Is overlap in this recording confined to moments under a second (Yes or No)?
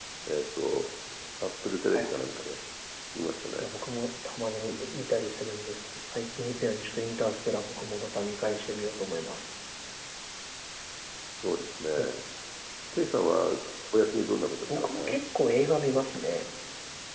Yes